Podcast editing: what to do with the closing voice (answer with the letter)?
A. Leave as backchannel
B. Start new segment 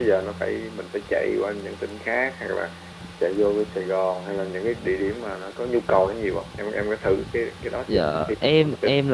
B